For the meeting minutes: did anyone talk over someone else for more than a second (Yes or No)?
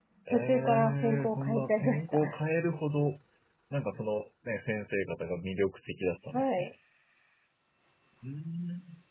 Yes